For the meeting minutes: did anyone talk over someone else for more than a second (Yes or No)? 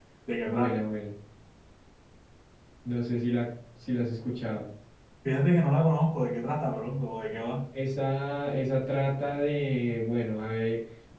No